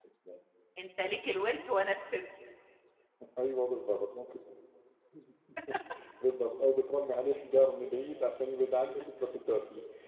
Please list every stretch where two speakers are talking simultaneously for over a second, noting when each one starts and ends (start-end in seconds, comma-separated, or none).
none